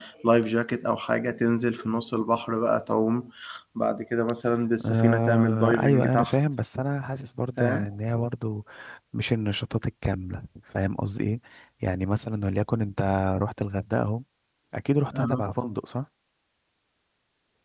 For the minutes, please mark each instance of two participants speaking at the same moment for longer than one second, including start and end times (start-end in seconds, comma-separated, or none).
4.8-6.3